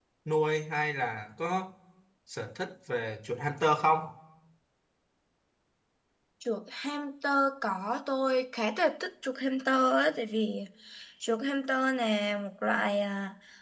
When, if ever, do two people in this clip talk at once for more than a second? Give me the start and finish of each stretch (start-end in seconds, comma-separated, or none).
none